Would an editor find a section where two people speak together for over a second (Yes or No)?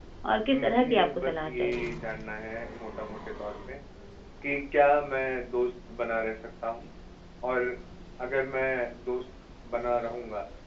Yes